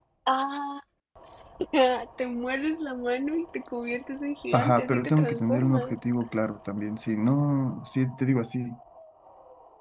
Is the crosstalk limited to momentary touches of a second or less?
No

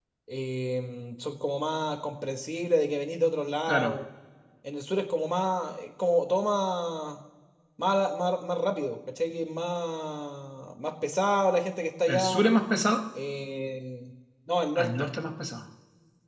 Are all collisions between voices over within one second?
Yes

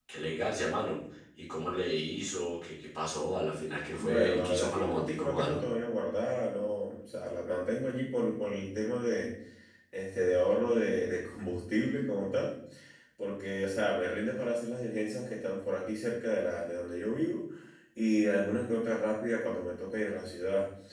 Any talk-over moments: Yes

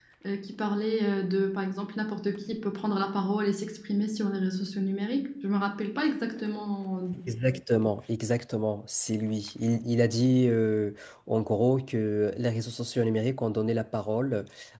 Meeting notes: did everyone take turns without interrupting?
Yes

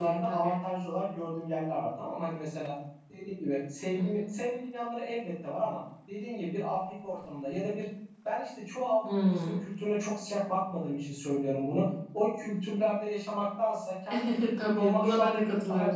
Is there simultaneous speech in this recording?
Yes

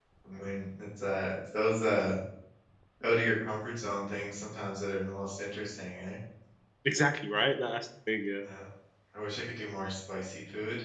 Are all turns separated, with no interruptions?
Yes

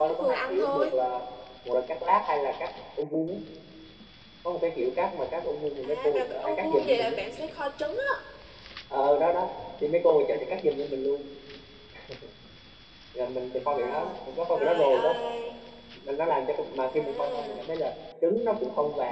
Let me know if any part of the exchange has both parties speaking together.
Yes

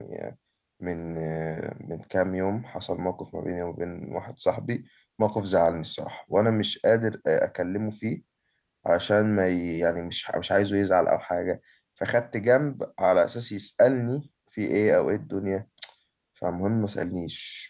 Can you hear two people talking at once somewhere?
No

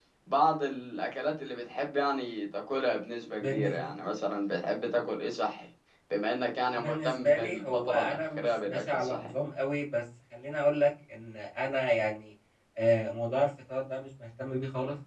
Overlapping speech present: Yes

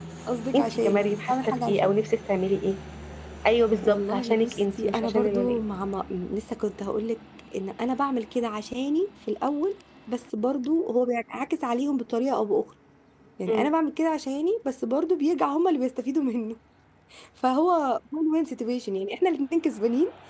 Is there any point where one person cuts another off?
Yes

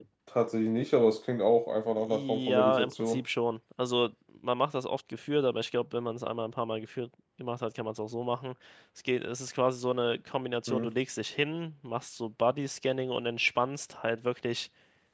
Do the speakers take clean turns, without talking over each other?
No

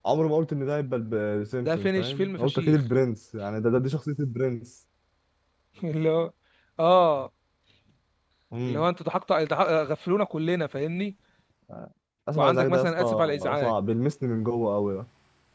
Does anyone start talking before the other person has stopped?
Yes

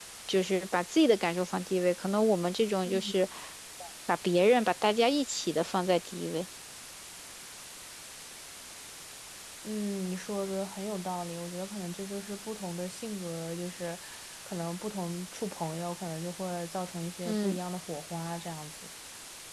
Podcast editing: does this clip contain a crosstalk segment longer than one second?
No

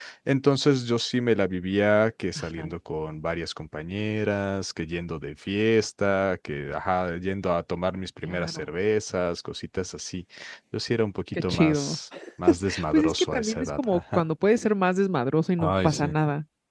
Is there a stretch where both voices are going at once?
Yes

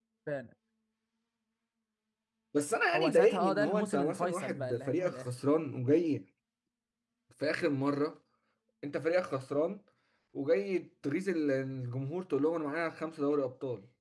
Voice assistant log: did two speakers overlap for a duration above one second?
Yes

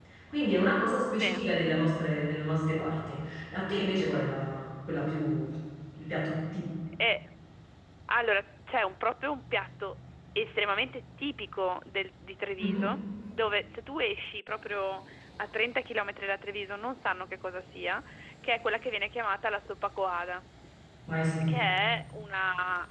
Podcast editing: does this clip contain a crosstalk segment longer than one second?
No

